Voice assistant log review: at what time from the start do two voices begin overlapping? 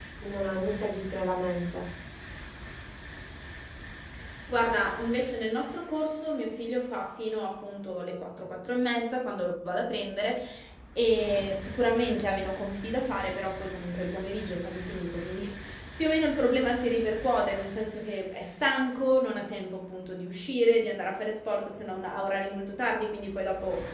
none

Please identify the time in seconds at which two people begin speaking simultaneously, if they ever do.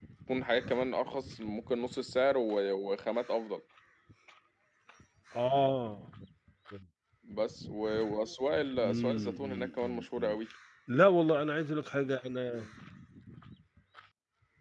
8.8 s

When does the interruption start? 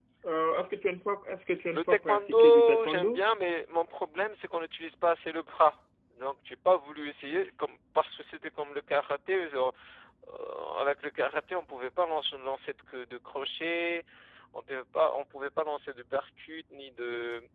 1.7 s

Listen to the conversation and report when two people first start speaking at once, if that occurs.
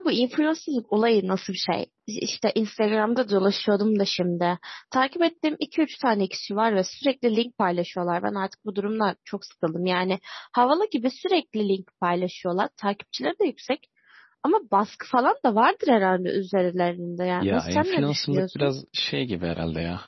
17.4 s

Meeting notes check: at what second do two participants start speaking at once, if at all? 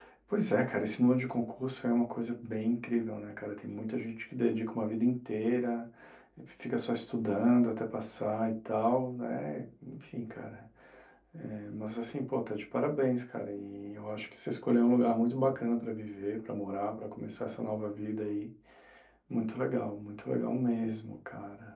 none

